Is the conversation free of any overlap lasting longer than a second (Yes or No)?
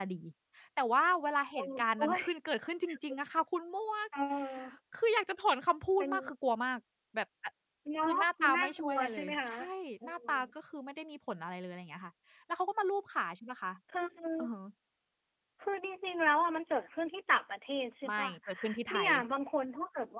No